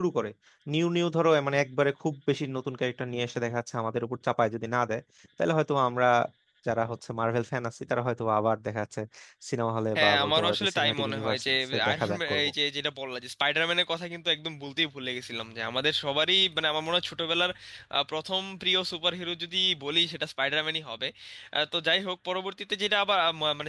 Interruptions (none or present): present